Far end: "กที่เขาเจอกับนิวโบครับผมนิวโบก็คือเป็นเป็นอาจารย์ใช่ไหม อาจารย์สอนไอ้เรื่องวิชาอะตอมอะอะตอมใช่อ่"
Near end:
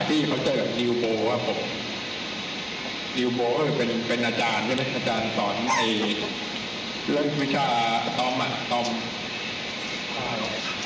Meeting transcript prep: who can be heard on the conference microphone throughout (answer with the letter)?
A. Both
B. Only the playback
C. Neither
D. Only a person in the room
B